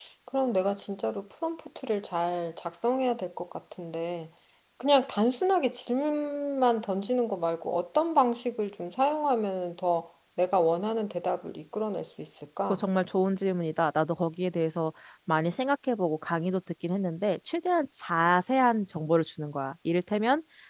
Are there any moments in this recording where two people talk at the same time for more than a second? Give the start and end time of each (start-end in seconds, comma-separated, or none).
none